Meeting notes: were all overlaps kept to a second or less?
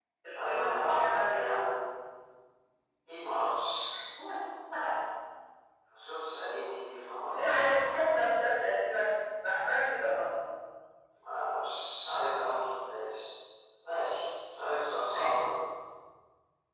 No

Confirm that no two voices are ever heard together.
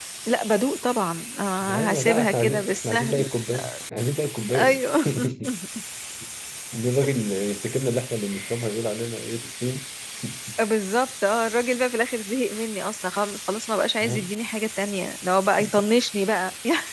No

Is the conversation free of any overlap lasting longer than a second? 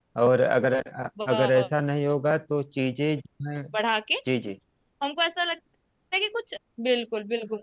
Yes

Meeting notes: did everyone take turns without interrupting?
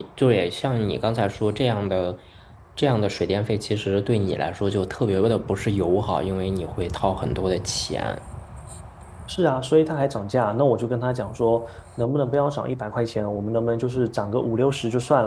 Yes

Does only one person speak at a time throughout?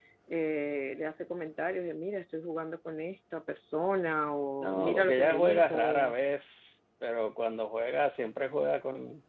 No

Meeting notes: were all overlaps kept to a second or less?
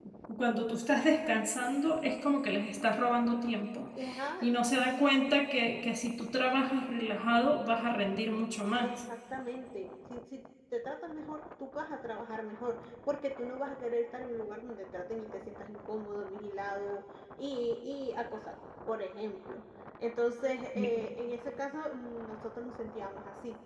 Yes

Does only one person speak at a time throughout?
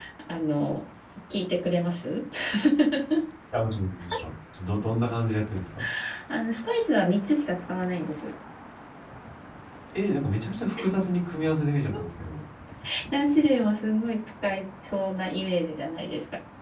Yes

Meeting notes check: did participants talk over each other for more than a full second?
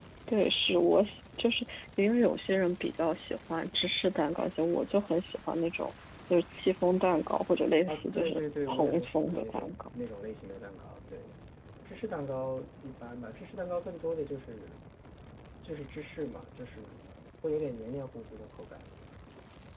Yes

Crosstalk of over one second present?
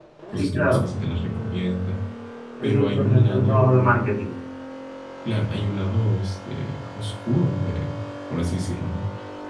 Yes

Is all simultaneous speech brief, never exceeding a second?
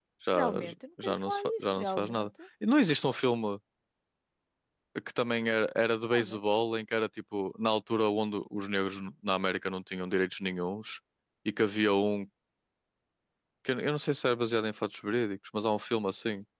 No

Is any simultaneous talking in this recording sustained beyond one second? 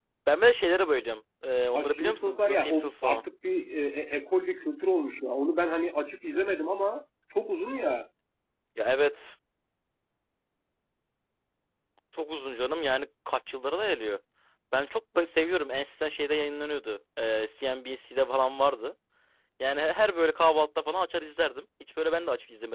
Yes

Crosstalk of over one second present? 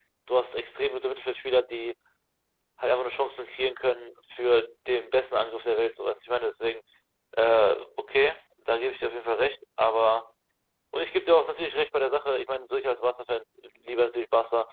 No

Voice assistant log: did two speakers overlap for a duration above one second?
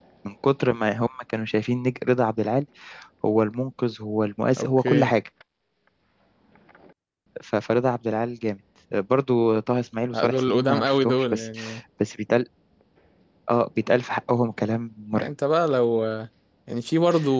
Yes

